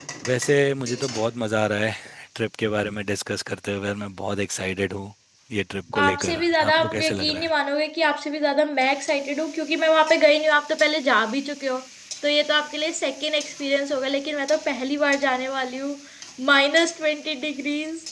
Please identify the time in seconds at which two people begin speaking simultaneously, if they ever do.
6 s

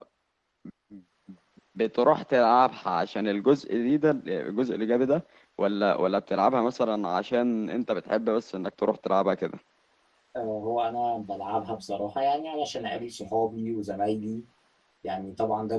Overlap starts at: none

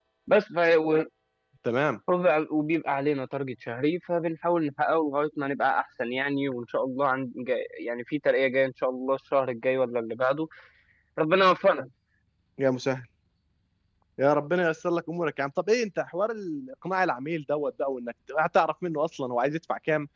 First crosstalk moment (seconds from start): none

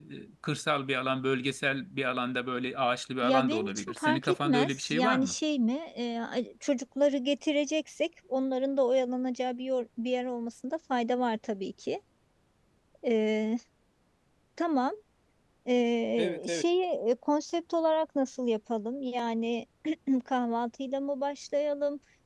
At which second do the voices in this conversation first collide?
3 s

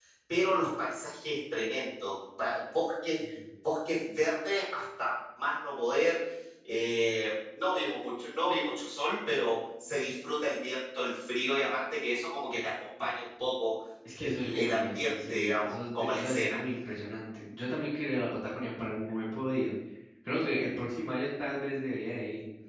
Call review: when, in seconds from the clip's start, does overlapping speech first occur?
14 s

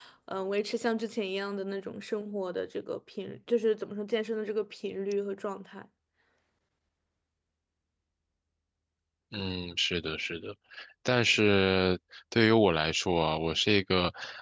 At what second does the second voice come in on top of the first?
none

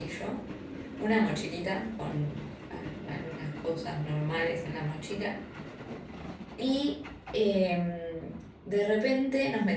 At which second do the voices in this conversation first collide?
none

